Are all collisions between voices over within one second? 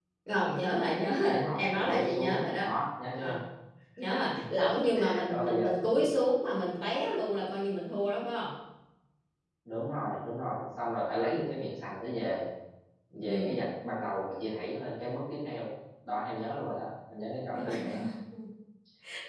No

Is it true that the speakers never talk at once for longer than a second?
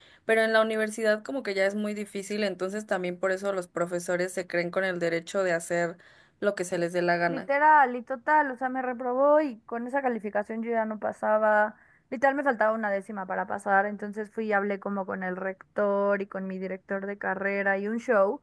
Yes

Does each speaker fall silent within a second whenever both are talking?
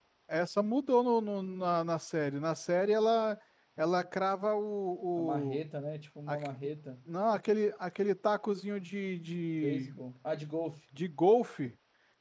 Yes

